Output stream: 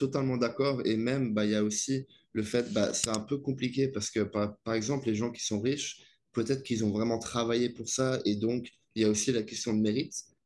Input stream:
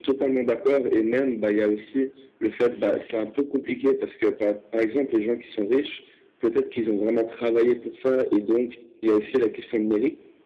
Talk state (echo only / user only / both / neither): echo only